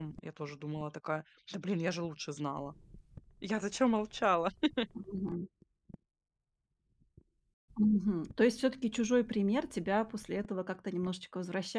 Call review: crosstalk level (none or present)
none